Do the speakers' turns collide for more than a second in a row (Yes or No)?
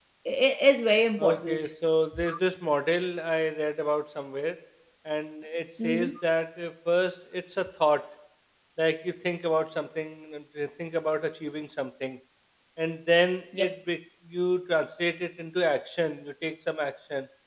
No